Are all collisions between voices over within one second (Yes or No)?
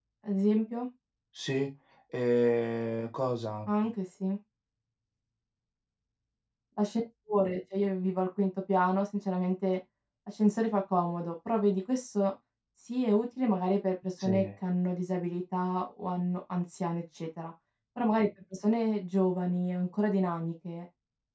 Yes